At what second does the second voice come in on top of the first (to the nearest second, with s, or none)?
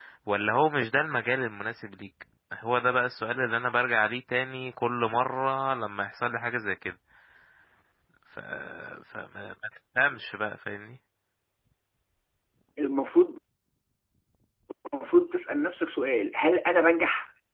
none